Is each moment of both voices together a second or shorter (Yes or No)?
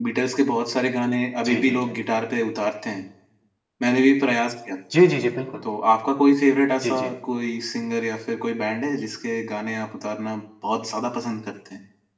Yes